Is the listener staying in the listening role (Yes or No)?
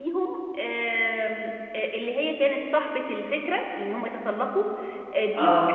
Yes